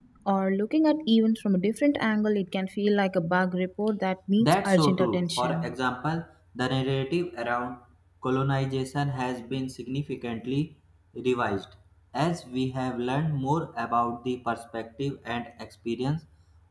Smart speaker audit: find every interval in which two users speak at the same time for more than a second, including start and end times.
4.4-5.7

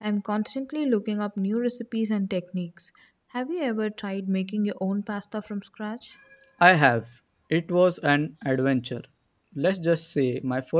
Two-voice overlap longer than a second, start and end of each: none

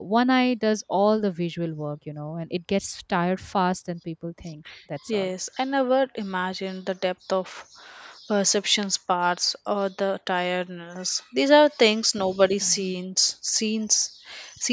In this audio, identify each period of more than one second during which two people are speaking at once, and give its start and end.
none

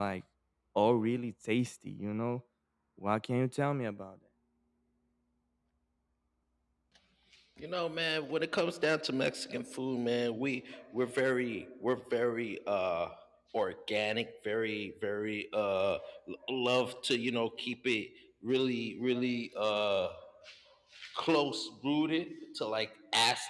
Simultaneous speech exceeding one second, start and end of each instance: none

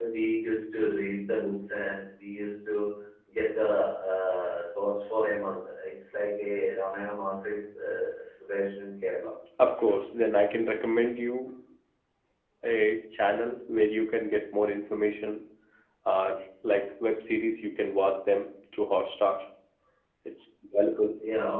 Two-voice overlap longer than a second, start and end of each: none

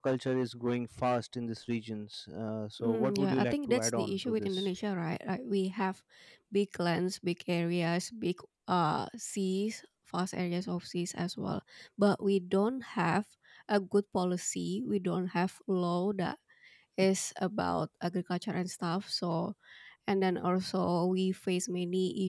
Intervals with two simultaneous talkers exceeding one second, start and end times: 2.8-4.7

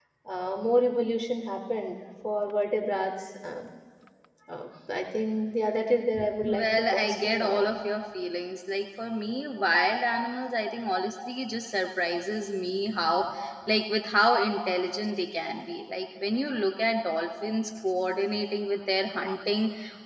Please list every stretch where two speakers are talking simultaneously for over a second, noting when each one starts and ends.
6.4-7.7

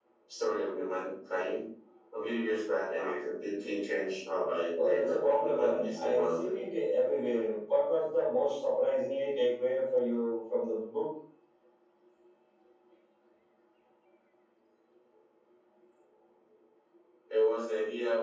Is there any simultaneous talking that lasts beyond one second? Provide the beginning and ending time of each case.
4.8-6.5

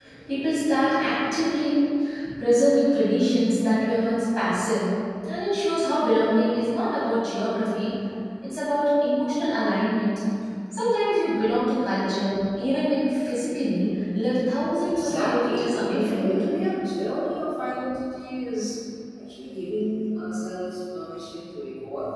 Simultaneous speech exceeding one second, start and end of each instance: 14.8-16.4

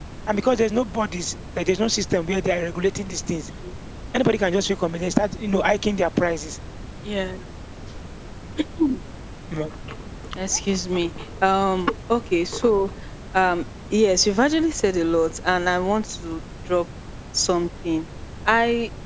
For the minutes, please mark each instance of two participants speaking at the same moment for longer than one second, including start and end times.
none

